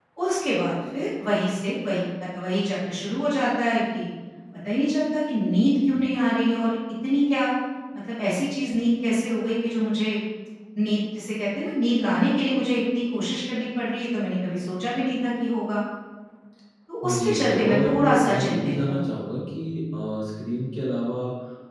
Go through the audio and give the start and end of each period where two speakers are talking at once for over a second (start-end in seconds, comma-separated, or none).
17.0-19.1